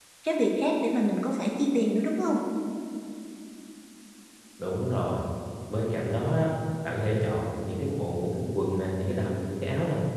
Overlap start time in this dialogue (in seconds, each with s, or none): none